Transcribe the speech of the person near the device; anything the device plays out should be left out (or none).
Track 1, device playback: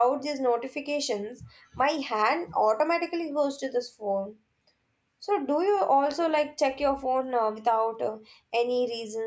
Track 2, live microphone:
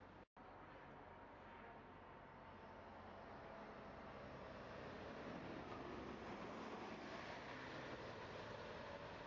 none